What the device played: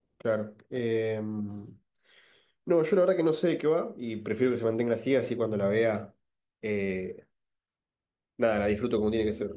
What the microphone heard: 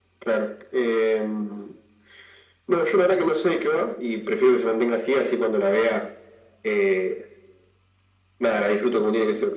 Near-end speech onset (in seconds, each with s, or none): none